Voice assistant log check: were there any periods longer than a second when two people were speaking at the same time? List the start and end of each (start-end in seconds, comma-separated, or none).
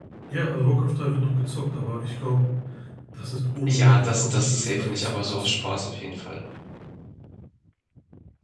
3.7-5.8